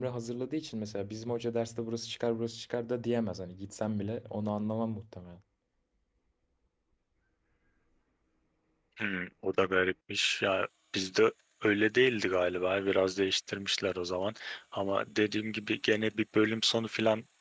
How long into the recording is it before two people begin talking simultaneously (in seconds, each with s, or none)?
none